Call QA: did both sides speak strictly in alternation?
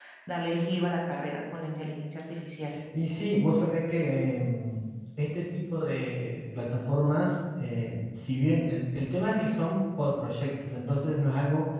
Yes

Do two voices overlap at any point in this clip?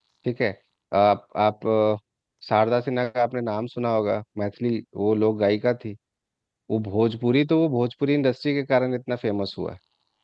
No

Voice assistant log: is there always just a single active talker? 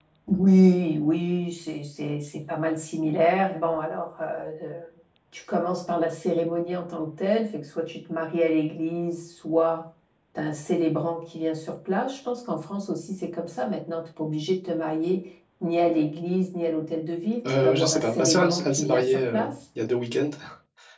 No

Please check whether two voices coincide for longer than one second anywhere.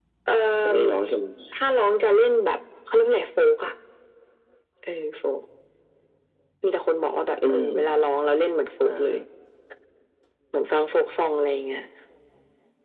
No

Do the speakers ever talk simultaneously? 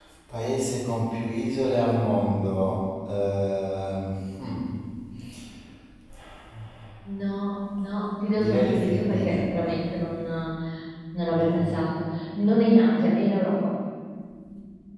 Yes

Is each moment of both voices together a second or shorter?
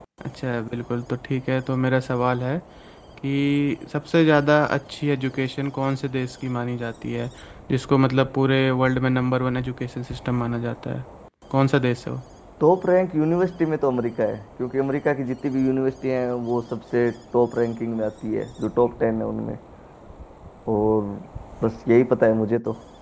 Yes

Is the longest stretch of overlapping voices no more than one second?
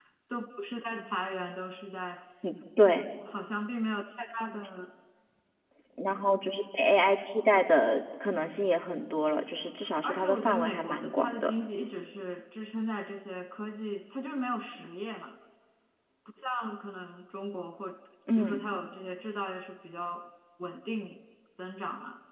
No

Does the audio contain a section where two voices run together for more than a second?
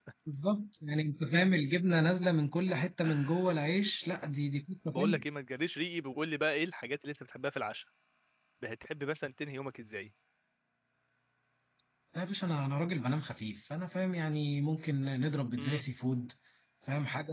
No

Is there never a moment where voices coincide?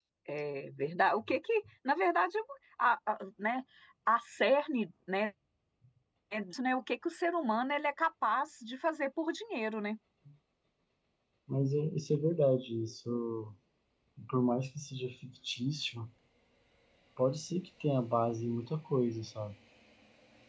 Yes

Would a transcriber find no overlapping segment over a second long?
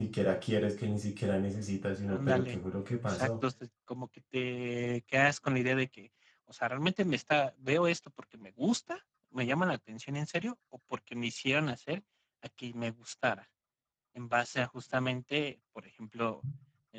Yes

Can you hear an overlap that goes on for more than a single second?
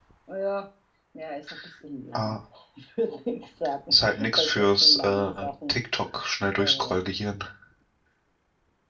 Yes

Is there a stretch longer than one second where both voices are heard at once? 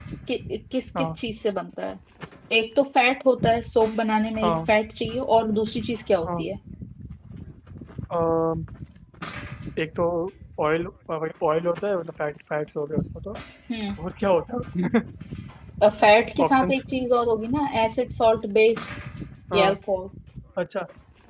No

